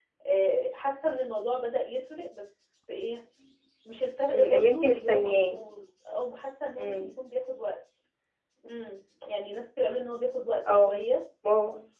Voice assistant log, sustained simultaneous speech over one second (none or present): present